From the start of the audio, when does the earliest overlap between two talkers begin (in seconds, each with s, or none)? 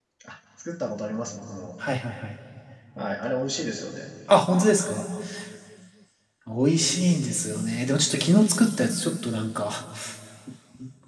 none